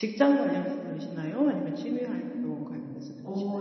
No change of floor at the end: No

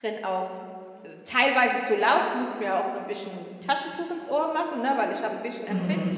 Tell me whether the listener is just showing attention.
No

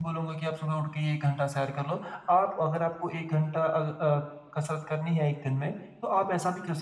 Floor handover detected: No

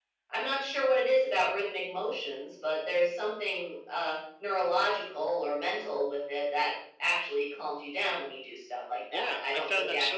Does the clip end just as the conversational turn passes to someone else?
Yes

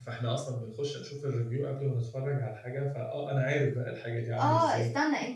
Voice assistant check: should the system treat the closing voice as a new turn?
Yes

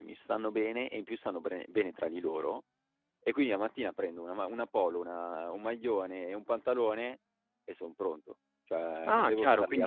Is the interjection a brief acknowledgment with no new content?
No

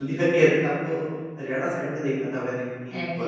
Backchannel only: Yes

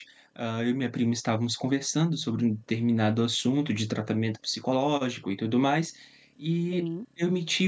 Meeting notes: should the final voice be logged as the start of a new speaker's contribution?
No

